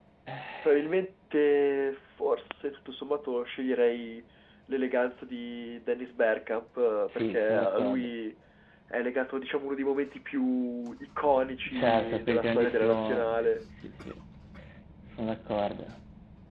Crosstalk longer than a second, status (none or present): present